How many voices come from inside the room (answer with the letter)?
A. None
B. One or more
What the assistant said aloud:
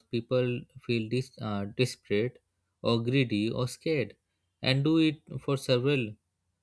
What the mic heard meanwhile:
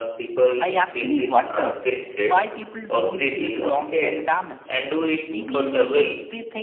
B